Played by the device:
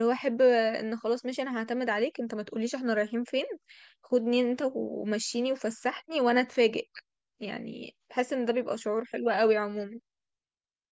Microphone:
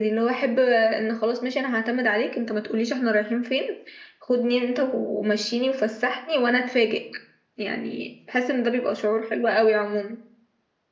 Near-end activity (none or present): none